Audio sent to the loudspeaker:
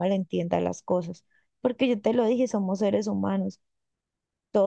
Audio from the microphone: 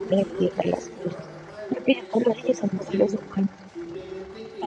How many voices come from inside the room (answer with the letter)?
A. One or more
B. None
A